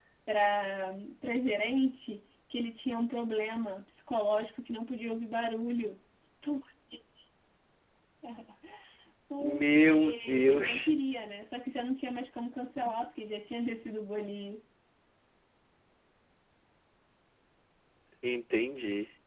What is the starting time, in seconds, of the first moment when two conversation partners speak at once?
9.4 s

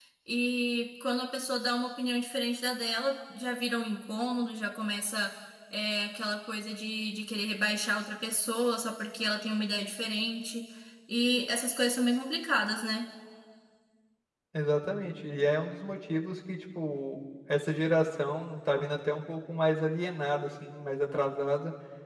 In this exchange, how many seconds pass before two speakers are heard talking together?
none

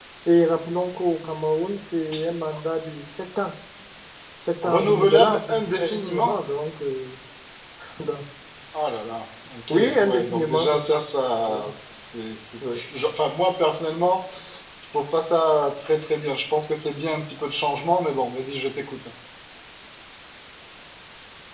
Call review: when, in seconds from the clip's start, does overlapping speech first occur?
4.6 s

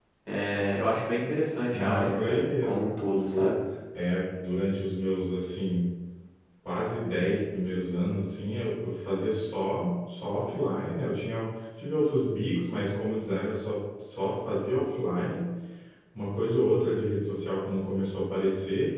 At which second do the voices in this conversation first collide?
1.7 s

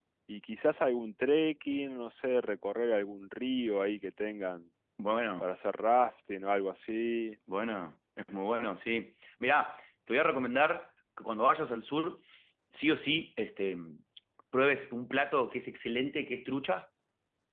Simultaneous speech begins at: none

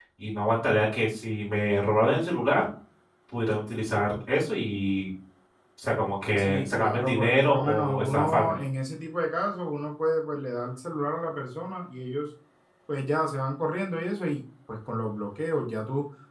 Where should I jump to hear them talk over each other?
6.4 s

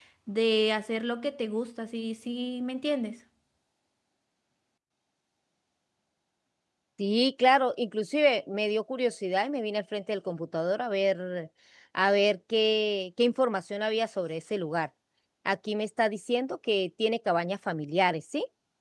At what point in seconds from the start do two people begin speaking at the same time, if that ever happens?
none

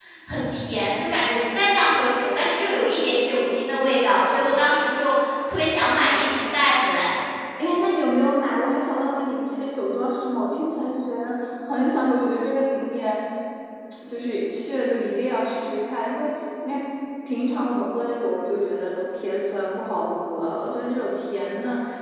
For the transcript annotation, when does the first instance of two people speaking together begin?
none

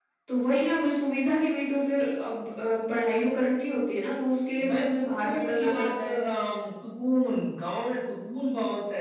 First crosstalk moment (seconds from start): 4.6 s

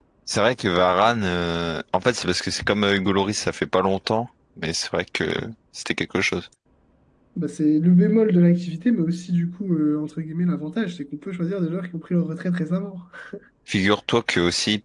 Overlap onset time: none

